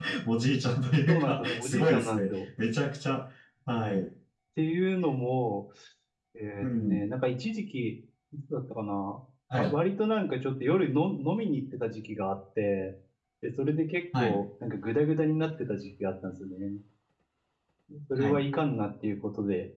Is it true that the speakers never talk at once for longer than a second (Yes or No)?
No